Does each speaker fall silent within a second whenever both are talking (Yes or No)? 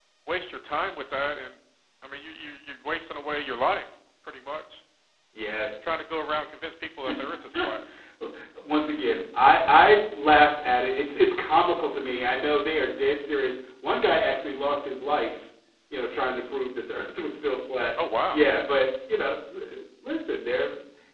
Yes